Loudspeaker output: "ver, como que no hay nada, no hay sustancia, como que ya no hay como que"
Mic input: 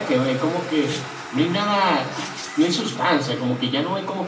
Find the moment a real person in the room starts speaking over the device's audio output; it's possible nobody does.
none

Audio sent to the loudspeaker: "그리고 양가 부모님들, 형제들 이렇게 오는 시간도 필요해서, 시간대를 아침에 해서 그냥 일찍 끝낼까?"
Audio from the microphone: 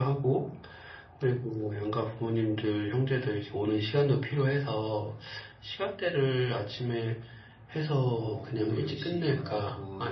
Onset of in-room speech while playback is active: 8.1 s

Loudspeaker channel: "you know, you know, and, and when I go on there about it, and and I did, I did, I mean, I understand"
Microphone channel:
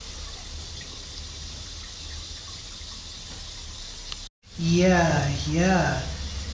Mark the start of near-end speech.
4.6 s

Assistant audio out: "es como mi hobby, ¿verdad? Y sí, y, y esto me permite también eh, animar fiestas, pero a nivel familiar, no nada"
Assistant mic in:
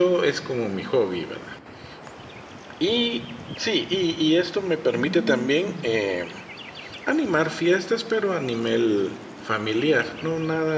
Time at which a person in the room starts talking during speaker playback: 4.9 s

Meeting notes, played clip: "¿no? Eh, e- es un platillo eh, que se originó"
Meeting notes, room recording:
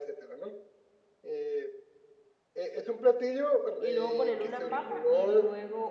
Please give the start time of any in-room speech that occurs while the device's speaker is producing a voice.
3.8 s

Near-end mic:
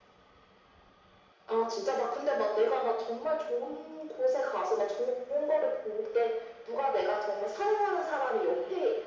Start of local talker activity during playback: none

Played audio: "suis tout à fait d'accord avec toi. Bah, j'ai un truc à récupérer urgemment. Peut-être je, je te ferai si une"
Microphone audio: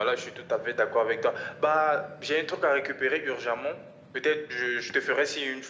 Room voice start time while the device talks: none

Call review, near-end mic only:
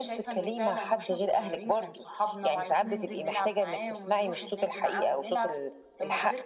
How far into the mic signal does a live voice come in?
none

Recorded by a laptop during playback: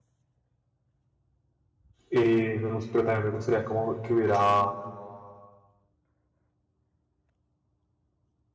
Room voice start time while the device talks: 2.1 s

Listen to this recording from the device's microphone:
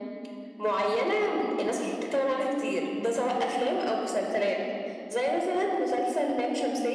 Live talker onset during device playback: none

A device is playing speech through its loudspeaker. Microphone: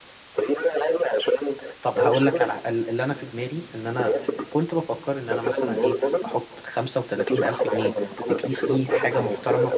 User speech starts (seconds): 1.8 s

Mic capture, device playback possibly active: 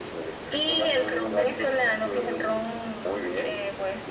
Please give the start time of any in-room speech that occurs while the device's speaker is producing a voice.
none

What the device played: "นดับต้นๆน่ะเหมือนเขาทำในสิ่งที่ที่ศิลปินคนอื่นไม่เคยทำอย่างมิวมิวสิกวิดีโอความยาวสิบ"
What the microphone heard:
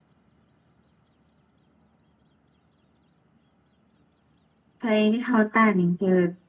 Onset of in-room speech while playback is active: 4.8 s

